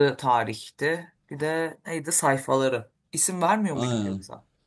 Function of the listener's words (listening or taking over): taking over